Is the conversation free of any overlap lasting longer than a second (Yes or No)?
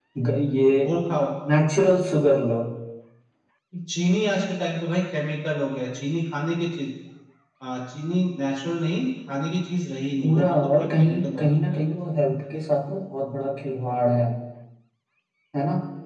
No